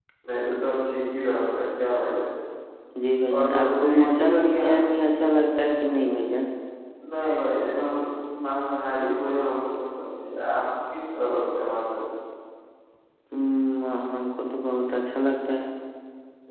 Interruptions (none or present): present